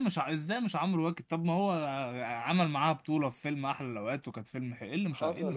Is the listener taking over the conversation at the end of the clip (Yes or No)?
Yes